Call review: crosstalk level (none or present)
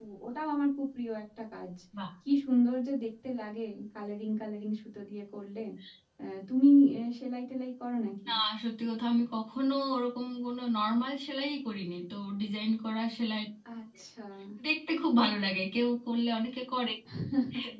none